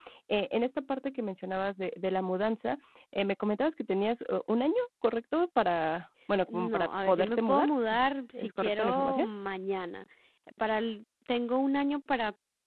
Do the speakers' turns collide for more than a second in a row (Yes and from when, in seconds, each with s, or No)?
Yes, from 6.5 s